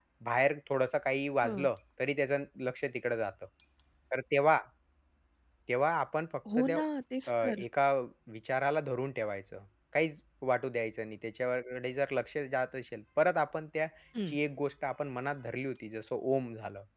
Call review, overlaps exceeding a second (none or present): none